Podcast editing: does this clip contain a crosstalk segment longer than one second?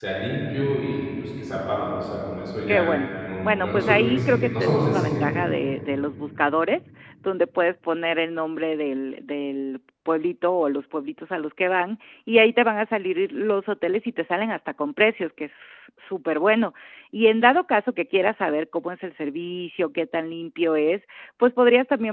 Yes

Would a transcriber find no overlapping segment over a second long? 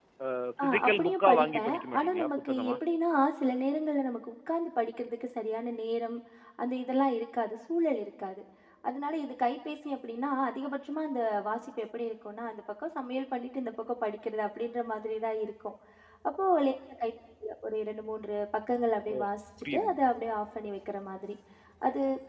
No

